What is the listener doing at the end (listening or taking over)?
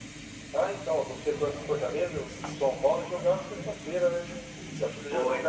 listening